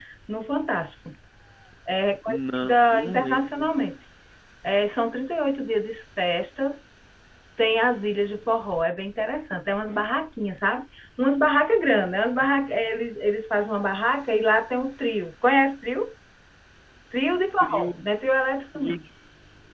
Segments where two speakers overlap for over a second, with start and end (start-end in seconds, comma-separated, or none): 2.3-3.7